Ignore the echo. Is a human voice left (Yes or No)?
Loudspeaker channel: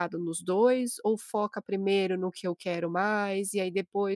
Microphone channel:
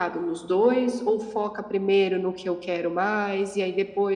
No